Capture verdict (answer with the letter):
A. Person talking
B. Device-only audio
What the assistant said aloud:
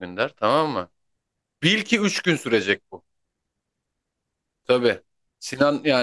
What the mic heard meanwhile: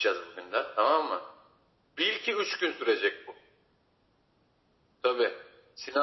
B